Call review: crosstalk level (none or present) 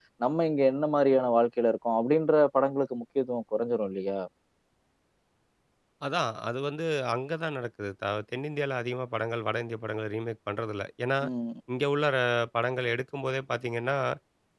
none